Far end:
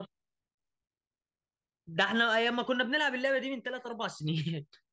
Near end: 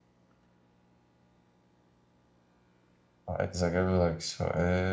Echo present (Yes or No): No